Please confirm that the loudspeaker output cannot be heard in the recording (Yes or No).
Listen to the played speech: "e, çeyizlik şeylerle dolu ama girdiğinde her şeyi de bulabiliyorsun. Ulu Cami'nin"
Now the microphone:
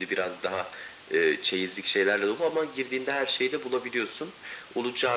No